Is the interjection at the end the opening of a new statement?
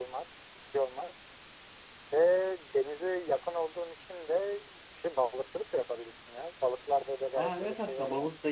Yes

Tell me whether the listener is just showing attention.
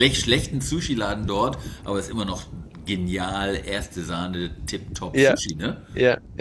No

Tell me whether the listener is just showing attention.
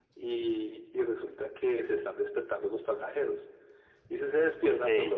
Yes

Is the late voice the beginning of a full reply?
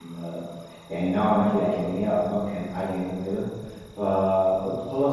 No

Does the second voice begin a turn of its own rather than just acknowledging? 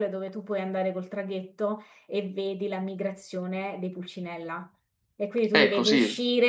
No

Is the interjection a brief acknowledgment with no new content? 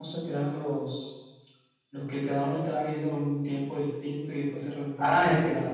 No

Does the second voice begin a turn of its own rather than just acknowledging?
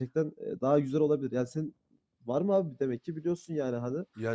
Yes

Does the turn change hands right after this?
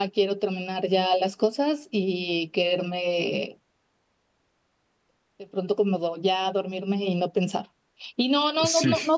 No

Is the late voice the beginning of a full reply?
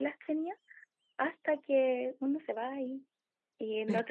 No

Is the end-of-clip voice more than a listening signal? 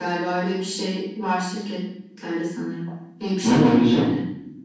Yes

